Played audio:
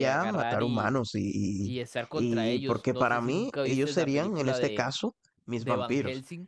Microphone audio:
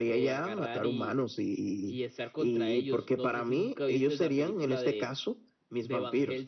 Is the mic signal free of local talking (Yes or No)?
Yes